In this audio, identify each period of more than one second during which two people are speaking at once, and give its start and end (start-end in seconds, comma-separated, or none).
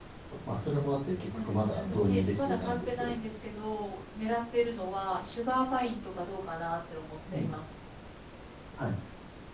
1.2-3.1